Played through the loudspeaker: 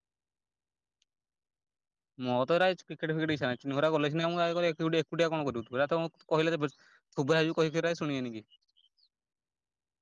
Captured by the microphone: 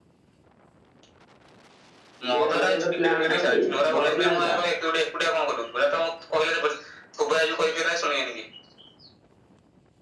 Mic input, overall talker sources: both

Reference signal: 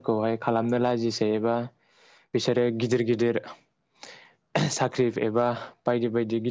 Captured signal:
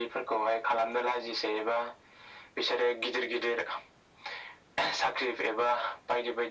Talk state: echo only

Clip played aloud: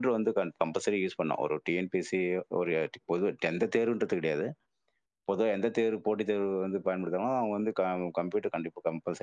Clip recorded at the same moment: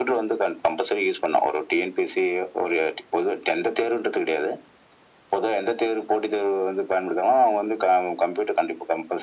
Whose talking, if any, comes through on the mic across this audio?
echo only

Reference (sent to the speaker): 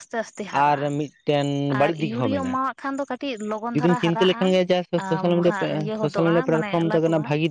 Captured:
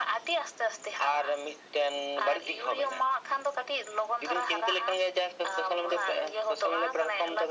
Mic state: echo only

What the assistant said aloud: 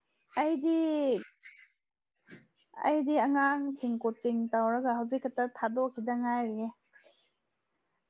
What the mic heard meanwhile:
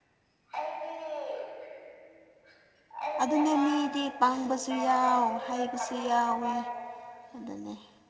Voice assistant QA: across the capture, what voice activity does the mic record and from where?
both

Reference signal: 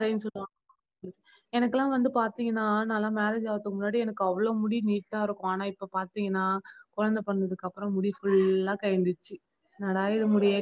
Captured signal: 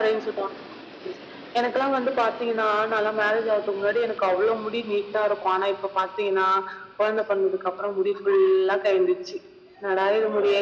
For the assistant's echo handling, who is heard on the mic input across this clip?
echo only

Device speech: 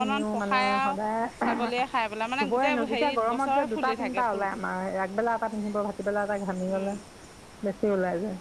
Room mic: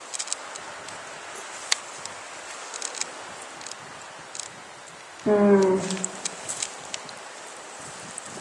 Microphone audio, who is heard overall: user only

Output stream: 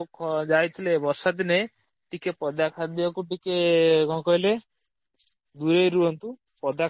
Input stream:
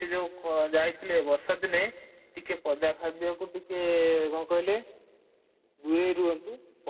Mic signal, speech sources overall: echo only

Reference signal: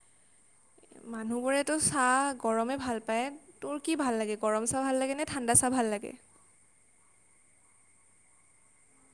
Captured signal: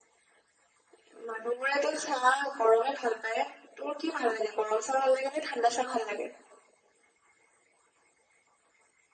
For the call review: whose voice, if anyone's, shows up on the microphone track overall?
echo only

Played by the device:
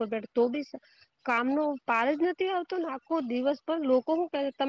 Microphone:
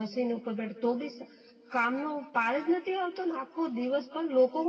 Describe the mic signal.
echo only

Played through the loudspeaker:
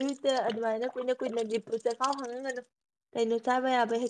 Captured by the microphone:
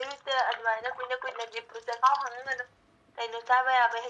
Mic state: echo only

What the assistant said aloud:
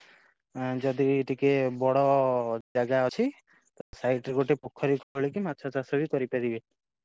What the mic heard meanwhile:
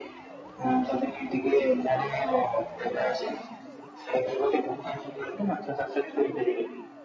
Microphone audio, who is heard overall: echo only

